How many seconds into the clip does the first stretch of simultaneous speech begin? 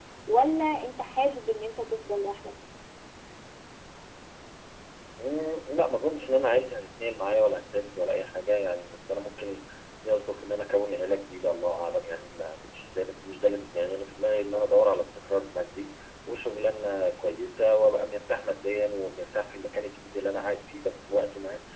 none

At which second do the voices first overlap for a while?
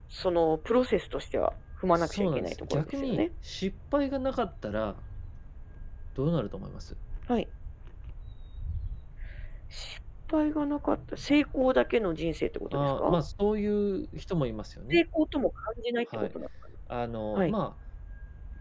2.0 s

